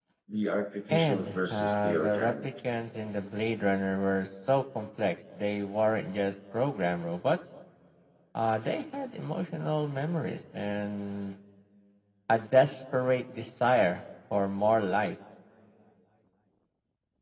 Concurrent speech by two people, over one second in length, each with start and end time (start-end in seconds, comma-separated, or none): 0.9-2.5